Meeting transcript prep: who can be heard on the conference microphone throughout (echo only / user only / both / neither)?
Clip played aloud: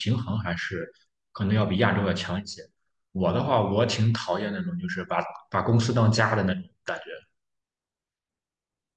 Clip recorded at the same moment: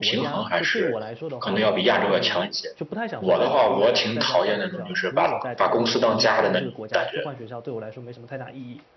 both